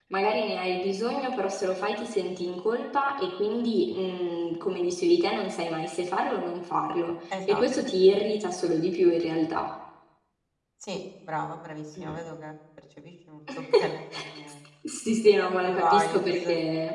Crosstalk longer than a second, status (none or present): present